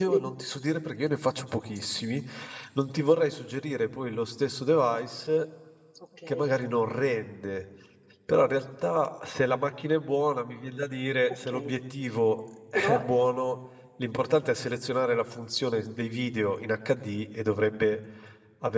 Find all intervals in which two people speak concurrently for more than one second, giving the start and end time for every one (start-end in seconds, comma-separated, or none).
none